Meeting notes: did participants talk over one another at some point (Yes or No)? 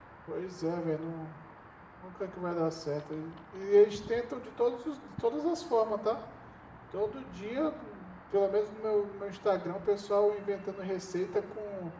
No